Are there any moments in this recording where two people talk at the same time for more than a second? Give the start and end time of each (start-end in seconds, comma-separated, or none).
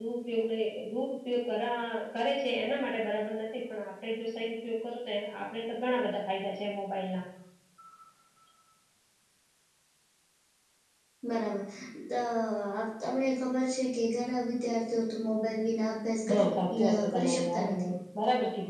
16.3-17.8